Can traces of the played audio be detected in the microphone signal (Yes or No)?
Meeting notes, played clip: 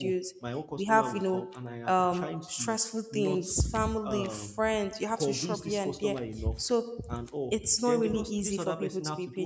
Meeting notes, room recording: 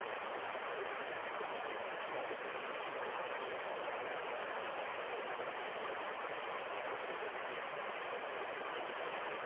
No